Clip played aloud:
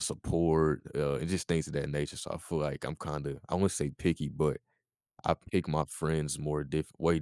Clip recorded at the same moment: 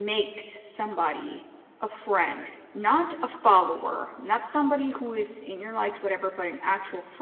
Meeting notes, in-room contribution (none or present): present